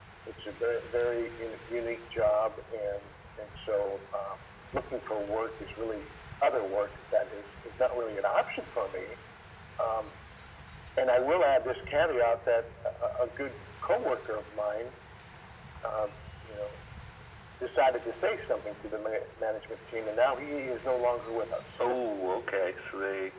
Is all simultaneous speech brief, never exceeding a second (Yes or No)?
Yes